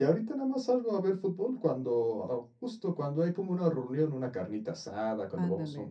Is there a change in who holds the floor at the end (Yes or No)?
No